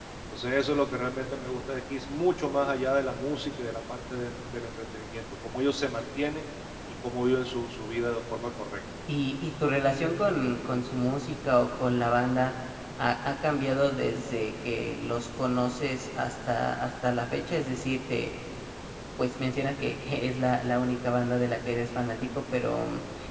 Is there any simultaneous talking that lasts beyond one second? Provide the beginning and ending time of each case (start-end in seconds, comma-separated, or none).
none